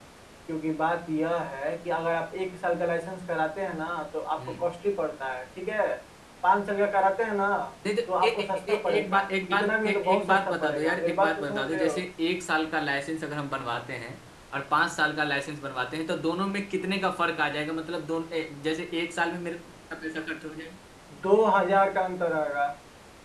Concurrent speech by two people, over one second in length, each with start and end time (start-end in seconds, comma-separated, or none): 8.2-12.0